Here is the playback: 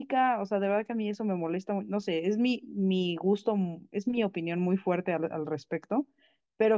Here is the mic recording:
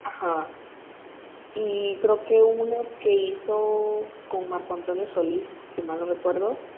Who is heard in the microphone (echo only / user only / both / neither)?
user only